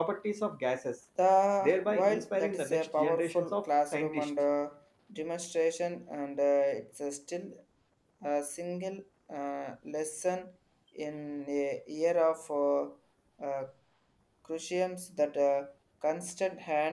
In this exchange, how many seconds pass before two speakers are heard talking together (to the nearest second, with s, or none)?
2 s